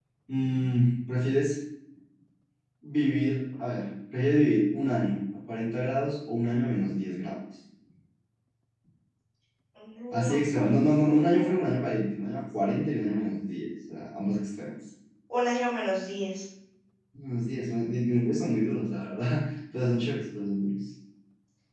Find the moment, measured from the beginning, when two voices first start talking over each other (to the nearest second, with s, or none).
10 s